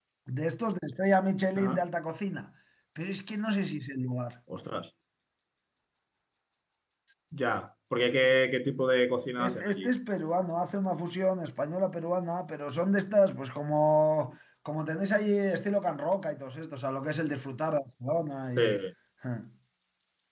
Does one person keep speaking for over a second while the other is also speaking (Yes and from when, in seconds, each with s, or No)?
No